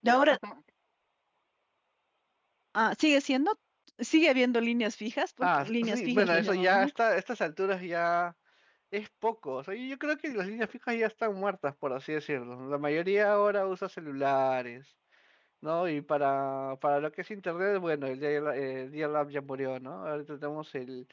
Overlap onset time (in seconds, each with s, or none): 5.4 s